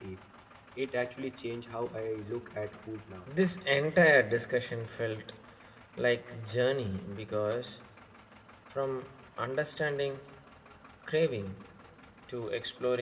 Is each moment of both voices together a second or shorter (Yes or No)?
Yes